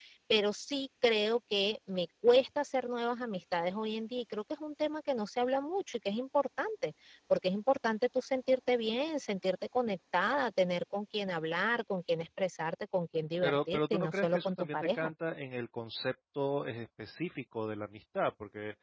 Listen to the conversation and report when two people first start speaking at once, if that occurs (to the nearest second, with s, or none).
13 s